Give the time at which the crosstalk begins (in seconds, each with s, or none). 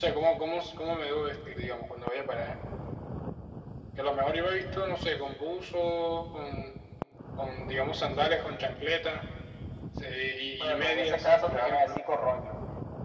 10.6 s